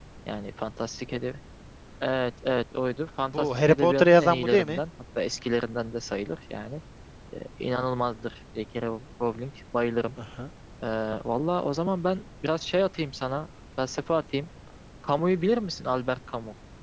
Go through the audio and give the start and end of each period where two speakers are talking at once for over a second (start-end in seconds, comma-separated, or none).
3.2-4.8